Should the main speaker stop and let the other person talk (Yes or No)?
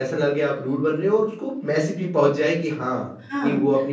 Yes